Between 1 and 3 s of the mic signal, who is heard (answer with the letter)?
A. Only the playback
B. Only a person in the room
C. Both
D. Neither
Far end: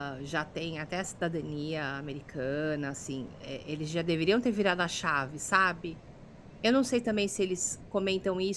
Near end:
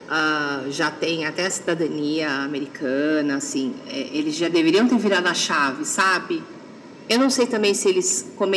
A